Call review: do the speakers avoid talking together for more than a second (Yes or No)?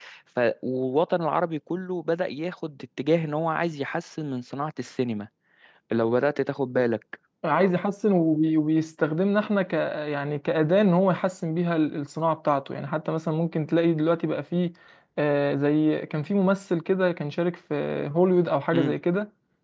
Yes